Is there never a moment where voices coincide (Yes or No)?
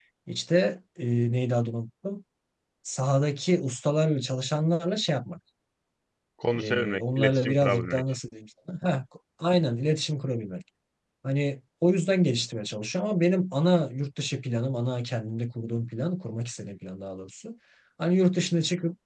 No